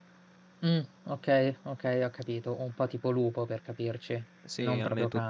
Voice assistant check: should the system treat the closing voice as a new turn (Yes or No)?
Yes